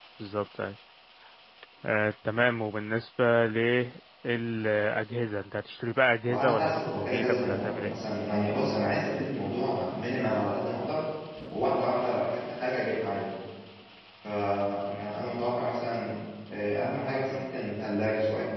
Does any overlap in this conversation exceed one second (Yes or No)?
Yes